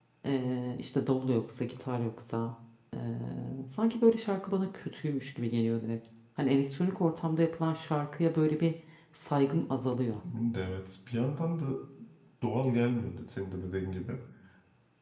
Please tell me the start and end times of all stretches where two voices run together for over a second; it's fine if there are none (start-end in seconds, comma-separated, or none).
none